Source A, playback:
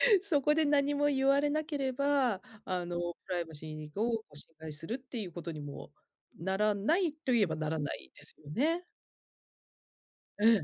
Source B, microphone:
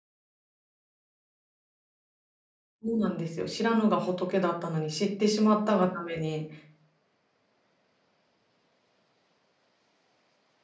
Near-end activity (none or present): present